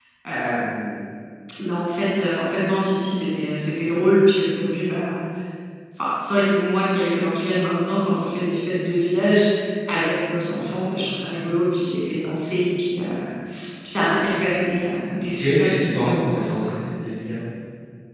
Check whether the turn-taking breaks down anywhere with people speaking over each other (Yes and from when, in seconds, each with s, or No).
Yes, from 15.4 s